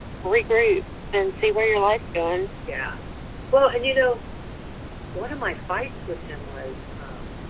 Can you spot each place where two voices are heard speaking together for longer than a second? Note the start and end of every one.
none

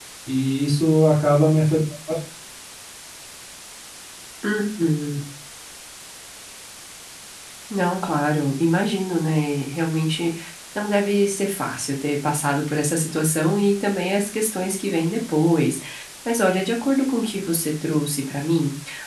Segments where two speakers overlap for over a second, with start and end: none

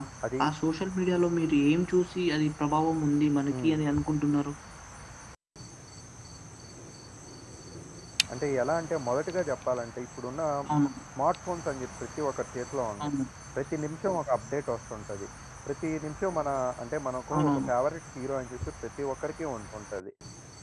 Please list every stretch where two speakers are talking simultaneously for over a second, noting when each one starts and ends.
none

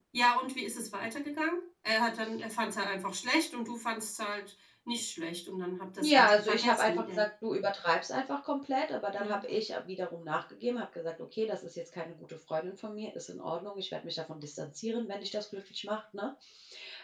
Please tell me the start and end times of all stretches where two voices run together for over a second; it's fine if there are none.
6.0-7.2

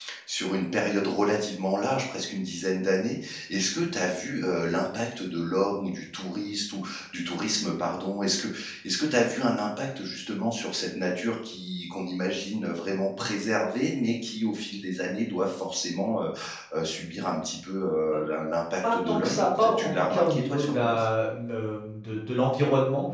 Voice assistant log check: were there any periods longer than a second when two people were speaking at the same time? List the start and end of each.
18.8-21.1

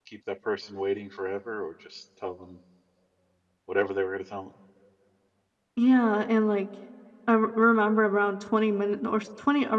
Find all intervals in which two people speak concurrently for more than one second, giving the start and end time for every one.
none

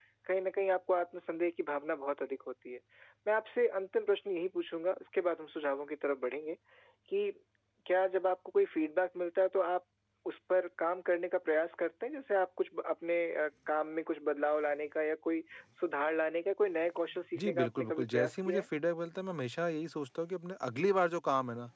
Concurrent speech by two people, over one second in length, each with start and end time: 17.4-18.6

